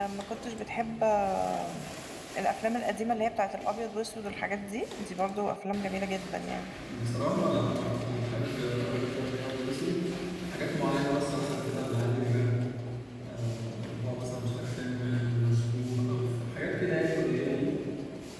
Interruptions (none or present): none